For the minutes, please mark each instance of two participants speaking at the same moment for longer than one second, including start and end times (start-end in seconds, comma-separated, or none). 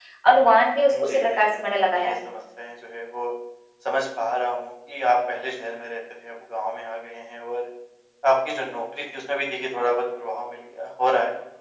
0.9-2.3